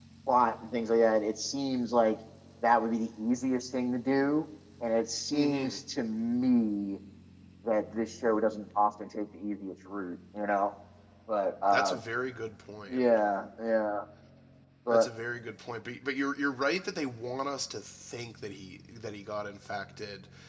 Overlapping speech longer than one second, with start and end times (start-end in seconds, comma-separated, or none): none